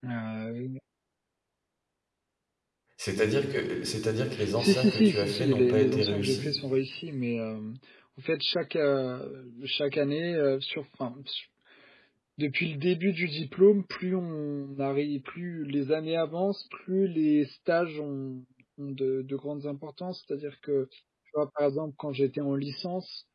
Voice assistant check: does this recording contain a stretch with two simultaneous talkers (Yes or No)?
Yes